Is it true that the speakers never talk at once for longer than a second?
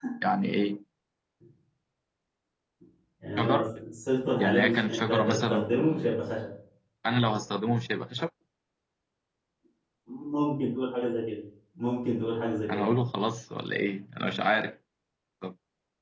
No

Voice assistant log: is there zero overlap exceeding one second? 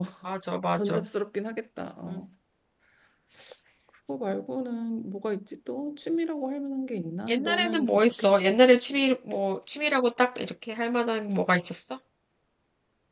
No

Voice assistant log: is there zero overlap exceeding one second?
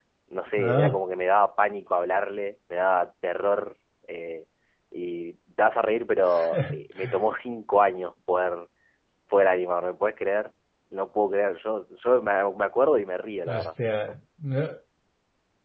Yes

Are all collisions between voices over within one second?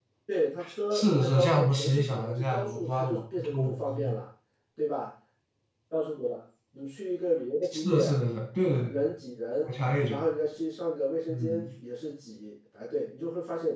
No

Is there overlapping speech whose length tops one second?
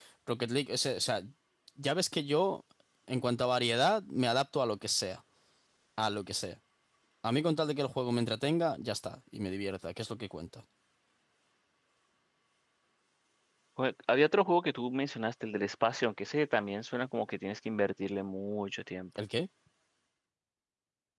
No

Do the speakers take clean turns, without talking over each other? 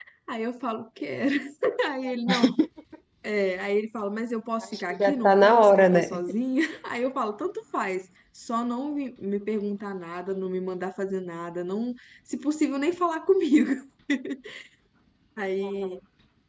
No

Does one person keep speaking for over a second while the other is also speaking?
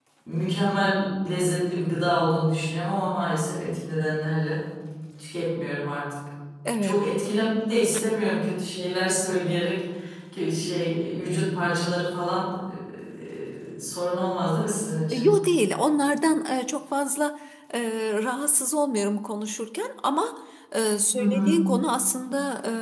No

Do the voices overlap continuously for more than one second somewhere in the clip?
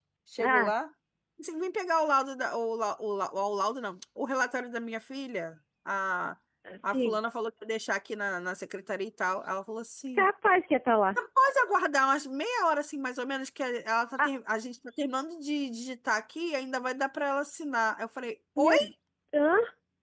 No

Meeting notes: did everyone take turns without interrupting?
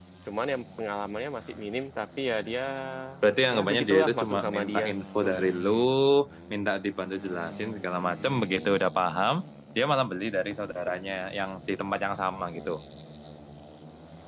No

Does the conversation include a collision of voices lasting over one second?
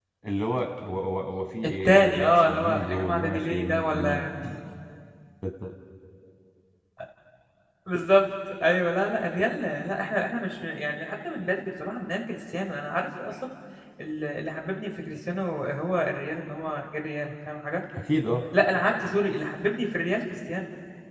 Yes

